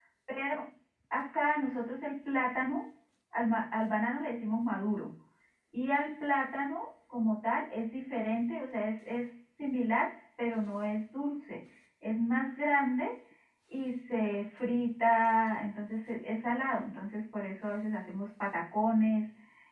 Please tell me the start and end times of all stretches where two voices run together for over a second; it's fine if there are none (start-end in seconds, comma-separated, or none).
none